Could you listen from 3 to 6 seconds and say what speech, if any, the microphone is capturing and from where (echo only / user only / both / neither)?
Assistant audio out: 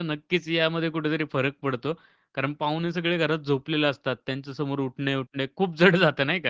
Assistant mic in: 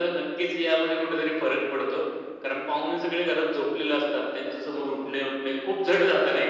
echo only